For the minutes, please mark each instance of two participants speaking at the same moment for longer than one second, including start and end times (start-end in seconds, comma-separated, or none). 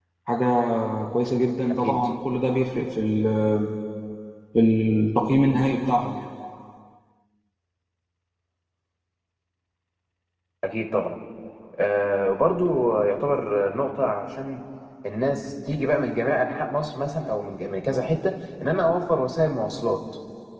none